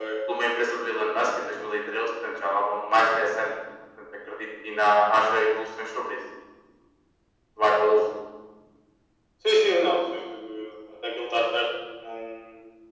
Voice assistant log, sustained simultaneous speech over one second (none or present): none